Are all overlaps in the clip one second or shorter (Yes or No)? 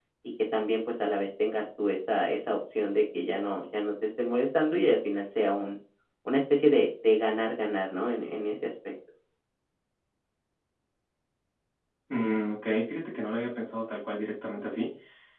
Yes